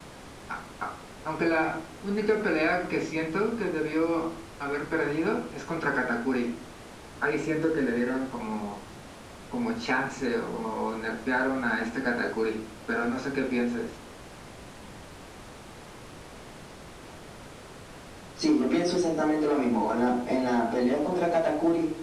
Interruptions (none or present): none